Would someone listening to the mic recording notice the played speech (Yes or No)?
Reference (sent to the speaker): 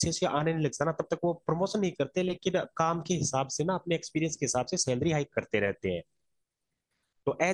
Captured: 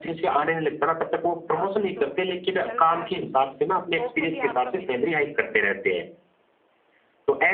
Yes